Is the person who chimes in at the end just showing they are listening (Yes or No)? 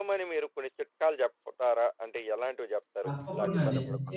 No